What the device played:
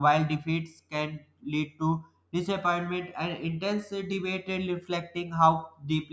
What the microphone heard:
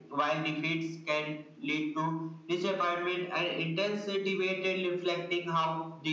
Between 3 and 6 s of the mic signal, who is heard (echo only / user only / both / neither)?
echo only